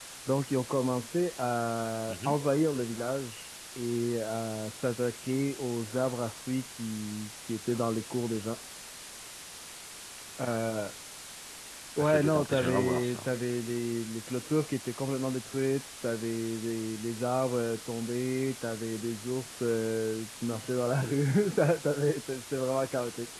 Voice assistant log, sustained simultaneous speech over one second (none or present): present